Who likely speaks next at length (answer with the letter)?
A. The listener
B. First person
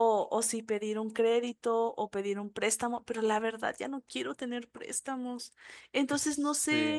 A